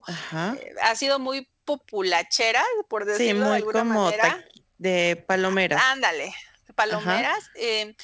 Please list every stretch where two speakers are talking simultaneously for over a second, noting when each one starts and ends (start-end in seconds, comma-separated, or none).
3.1-4.3